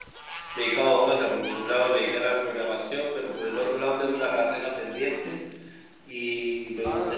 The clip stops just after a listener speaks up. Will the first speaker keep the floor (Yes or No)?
No